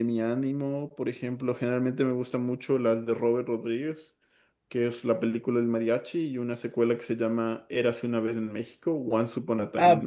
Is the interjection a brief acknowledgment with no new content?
No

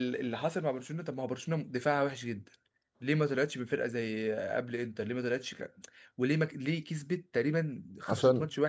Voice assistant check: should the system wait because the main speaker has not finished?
Yes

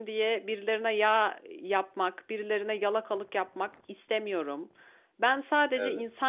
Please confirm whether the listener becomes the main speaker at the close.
No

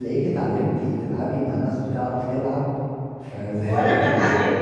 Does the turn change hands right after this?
Yes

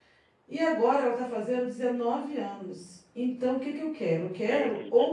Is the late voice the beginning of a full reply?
Yes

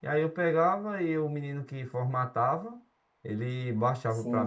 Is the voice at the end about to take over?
Yes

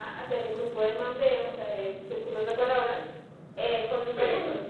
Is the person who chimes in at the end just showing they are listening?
Yes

